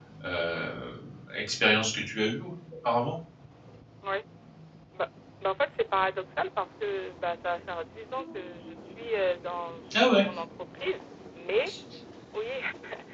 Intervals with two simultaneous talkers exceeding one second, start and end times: none

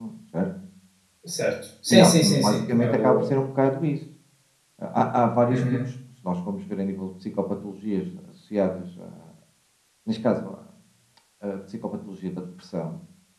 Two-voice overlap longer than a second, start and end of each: 1.9-3.3

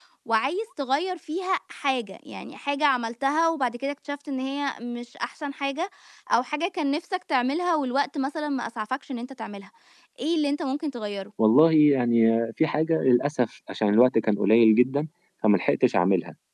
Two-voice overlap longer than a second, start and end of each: none

